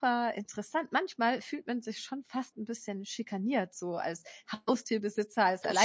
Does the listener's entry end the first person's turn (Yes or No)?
No